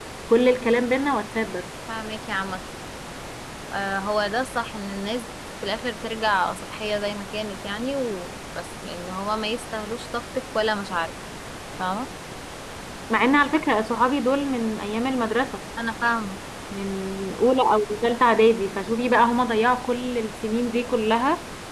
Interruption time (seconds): none

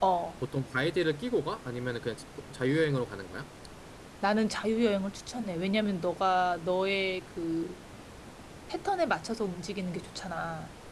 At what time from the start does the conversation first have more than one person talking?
none

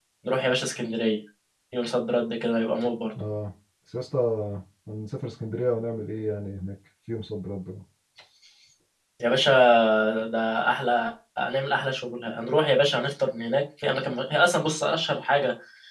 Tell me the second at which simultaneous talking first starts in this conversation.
none

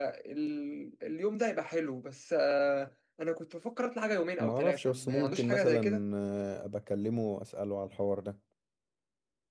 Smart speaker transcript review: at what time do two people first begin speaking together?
4.4 s

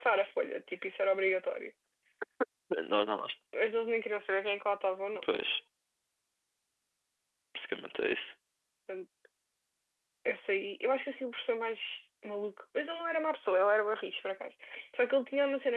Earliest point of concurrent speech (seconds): none

